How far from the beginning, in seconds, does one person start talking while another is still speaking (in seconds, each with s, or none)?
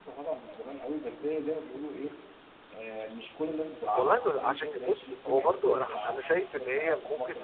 3.9 s